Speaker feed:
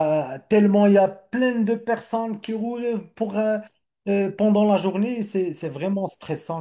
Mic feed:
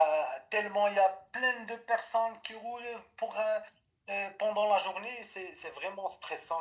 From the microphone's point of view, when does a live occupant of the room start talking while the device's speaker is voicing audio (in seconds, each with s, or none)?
none